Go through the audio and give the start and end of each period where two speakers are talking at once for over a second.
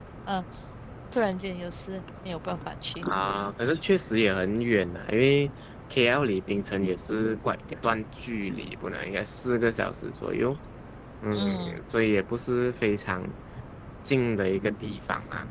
none

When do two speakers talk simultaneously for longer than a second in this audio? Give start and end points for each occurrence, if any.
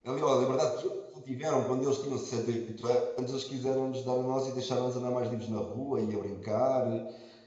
none

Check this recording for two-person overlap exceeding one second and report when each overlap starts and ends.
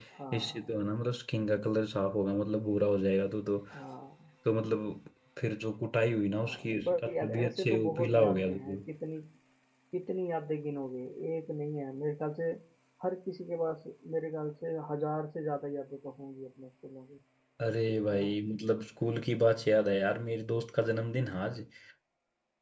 6.4-8.8

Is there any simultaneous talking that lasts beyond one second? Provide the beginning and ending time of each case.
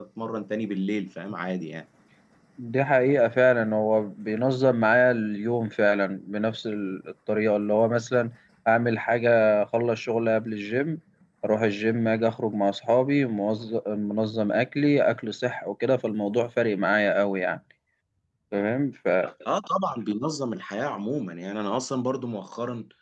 none

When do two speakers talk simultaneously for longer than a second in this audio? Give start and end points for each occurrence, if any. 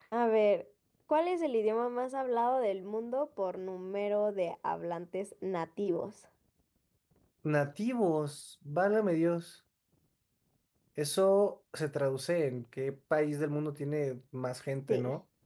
none

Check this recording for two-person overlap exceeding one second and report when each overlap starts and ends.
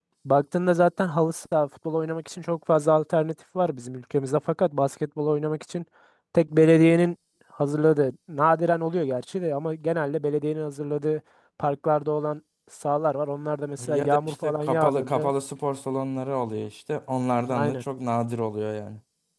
13.9-15.3

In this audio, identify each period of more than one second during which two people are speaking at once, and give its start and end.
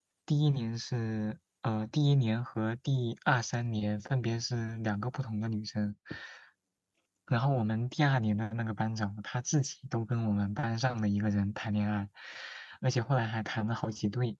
none

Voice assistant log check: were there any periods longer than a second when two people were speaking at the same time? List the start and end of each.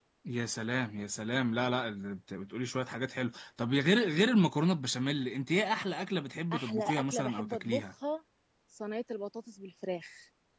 6.5-7.8

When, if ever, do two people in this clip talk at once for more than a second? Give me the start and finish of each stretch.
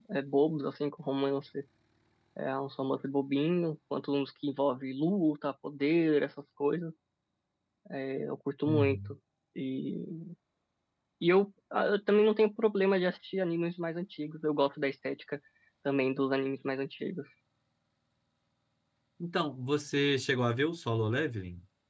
none

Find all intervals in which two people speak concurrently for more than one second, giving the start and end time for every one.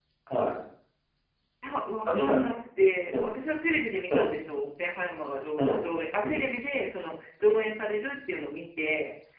none

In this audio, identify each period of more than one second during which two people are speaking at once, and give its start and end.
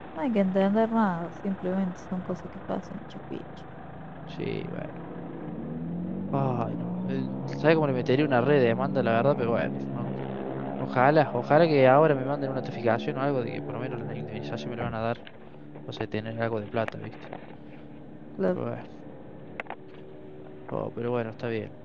none

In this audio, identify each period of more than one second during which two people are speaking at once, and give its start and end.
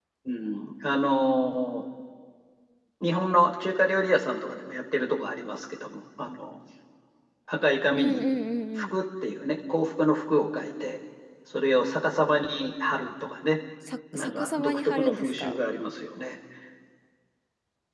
14.1-15.6

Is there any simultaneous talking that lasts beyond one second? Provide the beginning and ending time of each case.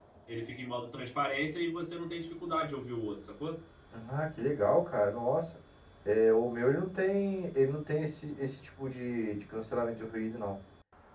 none

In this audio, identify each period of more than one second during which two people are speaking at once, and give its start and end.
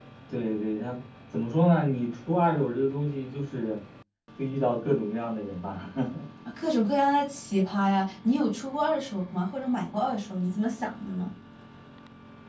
none

